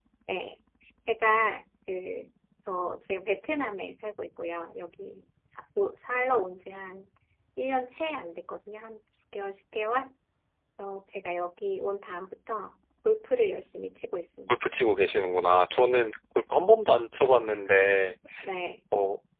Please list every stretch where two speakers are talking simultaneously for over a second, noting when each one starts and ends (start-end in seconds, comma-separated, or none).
none